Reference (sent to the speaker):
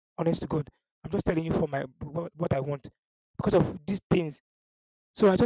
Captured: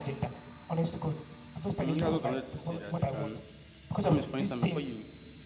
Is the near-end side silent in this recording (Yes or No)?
No